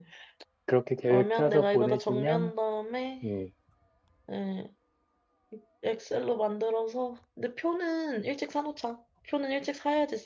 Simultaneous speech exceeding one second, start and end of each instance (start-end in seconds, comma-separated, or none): 1.1-2.5